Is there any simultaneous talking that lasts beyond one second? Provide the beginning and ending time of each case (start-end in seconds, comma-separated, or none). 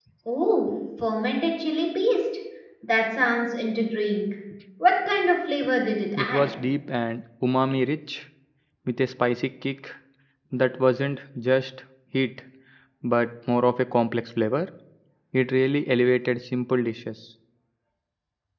none